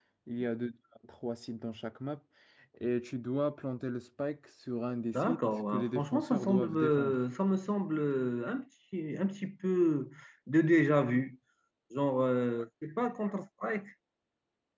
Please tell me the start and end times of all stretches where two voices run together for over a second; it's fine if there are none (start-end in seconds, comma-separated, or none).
5.1-7.2